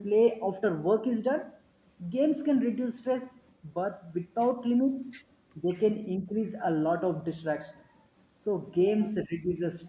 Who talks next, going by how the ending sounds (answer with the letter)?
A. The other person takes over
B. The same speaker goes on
B